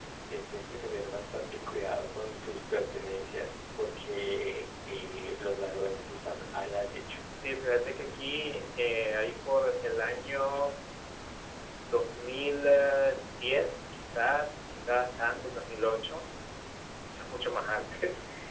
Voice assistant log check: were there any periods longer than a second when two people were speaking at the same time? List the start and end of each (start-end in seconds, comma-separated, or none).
none